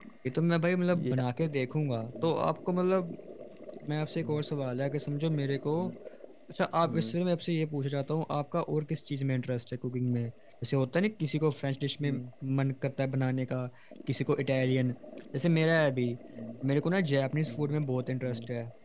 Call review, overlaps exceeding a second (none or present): none